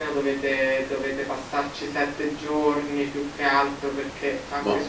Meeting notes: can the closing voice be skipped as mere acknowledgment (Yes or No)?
Yes